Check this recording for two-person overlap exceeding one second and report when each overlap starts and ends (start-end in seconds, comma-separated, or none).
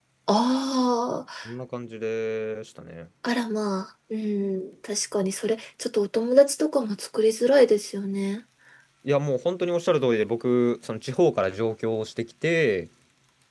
none